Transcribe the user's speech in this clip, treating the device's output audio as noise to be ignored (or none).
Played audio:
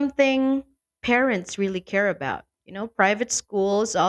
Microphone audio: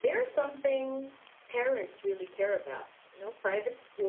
none